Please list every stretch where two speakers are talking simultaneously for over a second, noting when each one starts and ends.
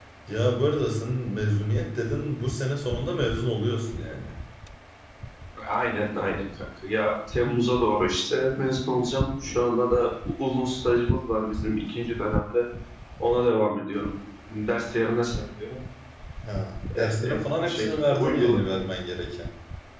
16.9-18.6

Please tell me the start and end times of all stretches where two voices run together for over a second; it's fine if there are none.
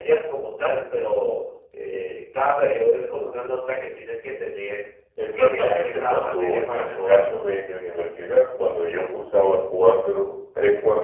5.4-7.3

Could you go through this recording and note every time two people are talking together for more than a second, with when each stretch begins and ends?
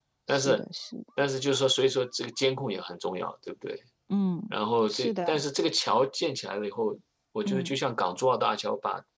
none

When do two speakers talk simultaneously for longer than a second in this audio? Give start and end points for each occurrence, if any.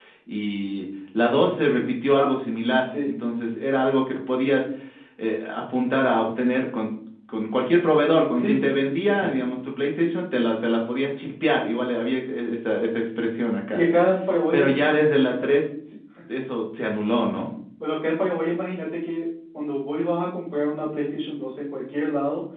none

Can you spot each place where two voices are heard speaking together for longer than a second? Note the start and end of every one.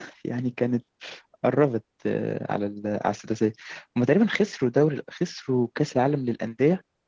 none

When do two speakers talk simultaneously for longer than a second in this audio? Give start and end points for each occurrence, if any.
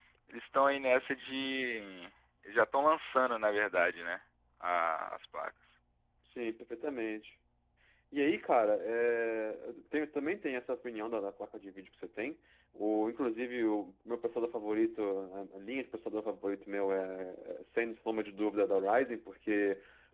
none

